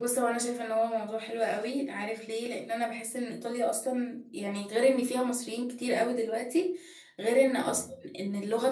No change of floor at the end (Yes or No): Yes